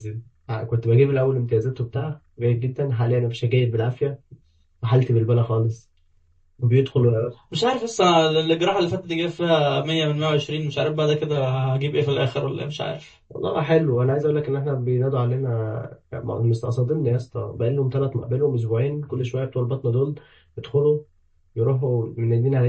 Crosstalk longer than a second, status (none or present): none